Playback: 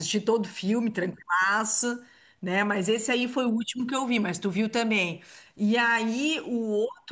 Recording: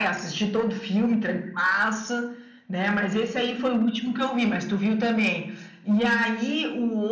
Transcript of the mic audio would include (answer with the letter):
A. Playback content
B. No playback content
A